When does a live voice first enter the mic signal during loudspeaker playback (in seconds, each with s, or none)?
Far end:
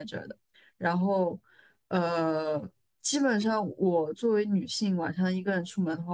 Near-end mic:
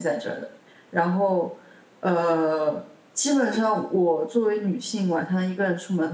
none